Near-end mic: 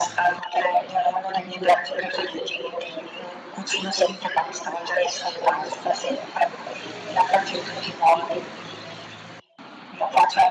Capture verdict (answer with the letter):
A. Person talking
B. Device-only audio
B